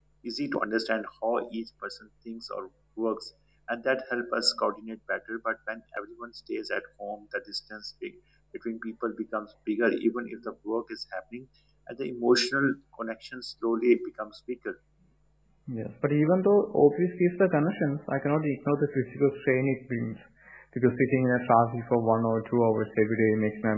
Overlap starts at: none

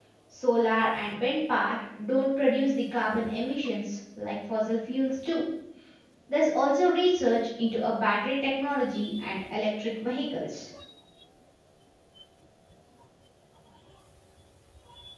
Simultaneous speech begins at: none

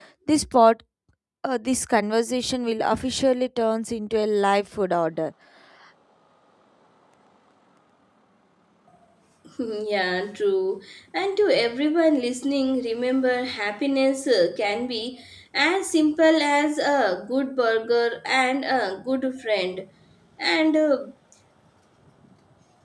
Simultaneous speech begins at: none

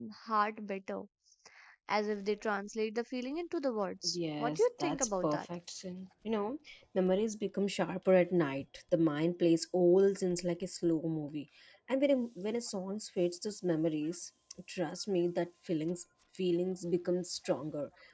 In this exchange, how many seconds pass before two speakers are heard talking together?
4.0 s

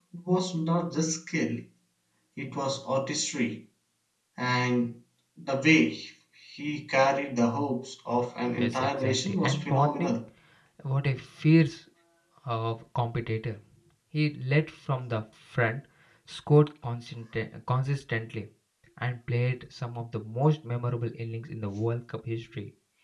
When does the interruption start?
8.6 s

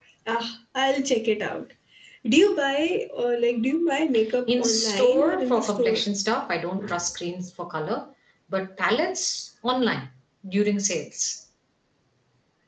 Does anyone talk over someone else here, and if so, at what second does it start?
4.5 s

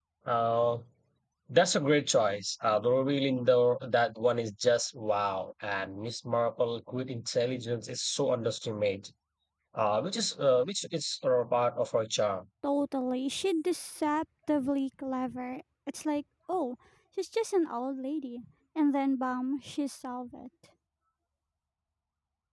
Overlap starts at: none

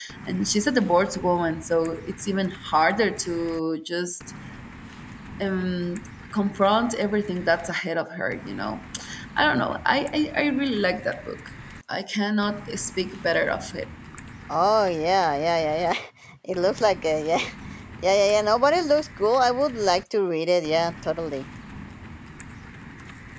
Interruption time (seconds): none

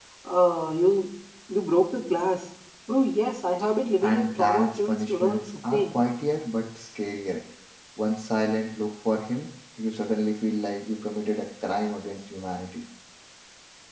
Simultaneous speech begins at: 4.0 s

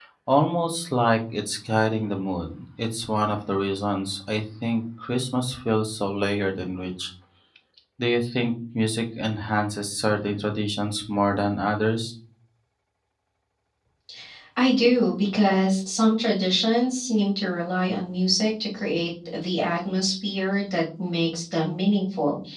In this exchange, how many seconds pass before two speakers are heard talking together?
none

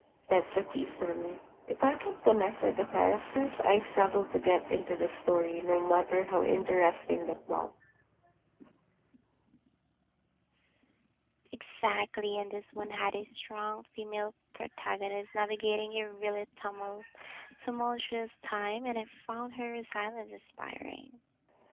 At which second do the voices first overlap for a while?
none

